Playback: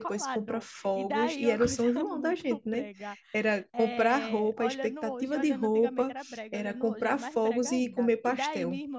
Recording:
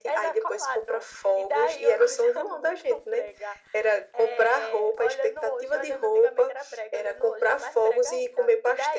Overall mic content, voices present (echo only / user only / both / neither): echo only